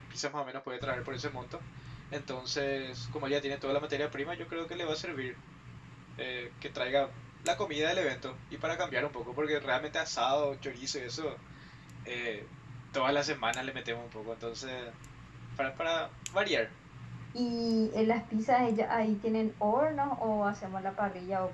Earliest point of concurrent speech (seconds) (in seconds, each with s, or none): none